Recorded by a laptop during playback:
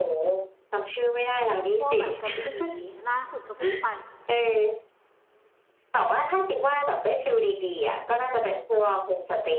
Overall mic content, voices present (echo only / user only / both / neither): both